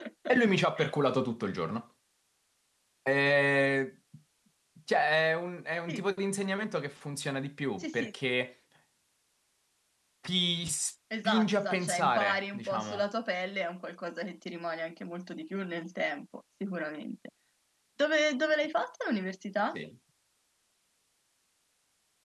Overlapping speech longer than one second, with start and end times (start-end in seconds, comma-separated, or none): 11.2-13.0